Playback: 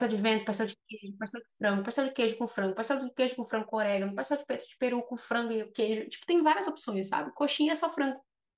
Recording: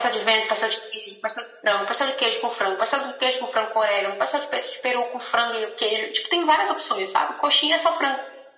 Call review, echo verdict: present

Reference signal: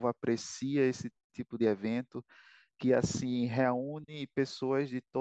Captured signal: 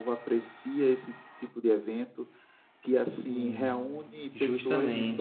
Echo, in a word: present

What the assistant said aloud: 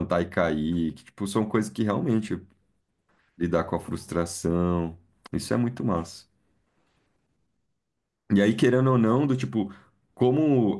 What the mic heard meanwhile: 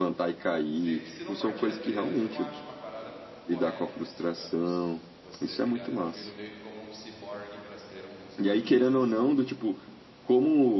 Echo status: present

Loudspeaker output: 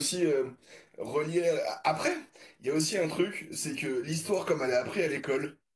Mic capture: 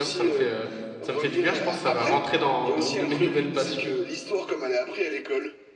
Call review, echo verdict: present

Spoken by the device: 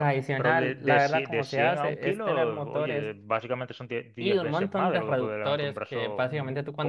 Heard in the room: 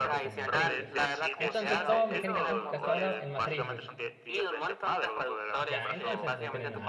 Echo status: present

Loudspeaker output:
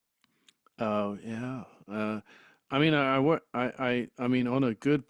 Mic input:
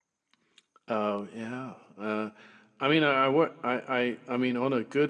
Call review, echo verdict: present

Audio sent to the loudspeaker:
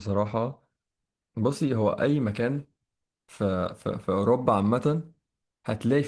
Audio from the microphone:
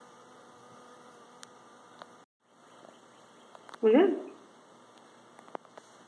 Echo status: none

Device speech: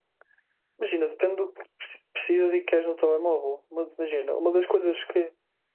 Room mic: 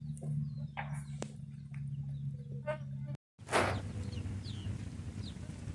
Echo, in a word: none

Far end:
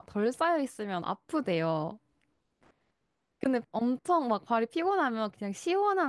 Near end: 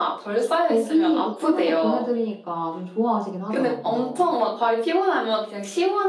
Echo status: present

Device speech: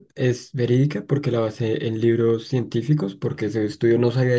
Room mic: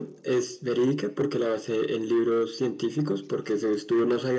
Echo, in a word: present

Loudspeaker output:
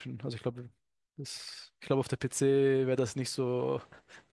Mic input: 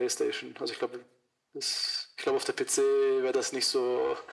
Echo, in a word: present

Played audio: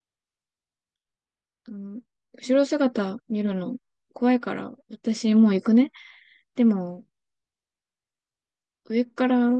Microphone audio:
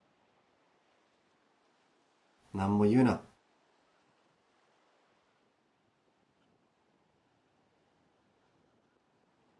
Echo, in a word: none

